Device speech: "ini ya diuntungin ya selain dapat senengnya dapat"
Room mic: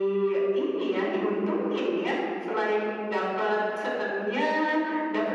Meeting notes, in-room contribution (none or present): none